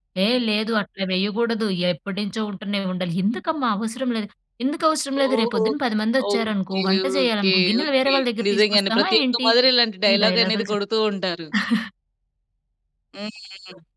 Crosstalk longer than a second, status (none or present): present